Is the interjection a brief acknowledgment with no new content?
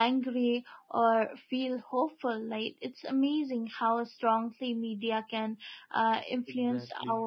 Yes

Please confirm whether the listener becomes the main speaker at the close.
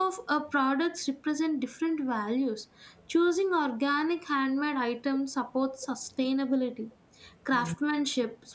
No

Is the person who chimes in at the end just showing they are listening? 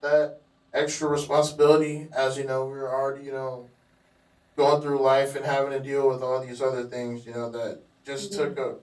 Yes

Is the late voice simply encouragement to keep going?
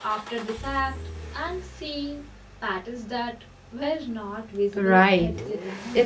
No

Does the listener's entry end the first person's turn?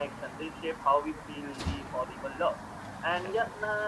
No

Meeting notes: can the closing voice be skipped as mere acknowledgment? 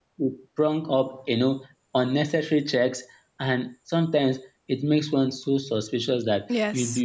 Yes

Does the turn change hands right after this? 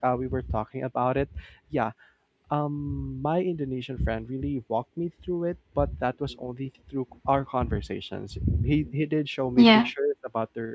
No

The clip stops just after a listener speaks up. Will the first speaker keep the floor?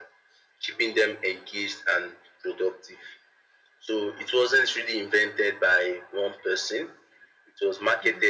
Yes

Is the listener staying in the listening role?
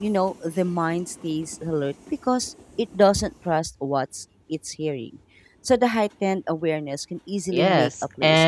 No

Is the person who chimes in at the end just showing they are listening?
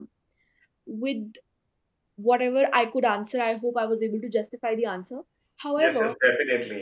No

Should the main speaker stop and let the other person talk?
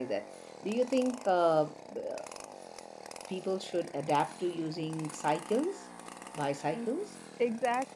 Yes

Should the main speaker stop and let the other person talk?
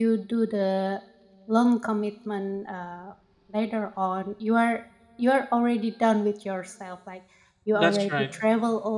No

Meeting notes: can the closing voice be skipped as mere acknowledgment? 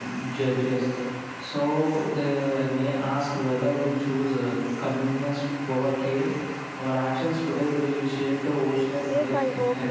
No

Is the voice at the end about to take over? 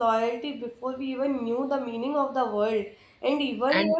No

